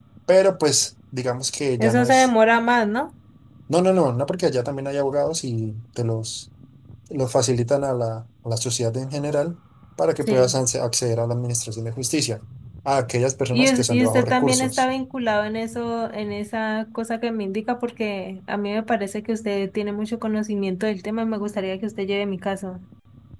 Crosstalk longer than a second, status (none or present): present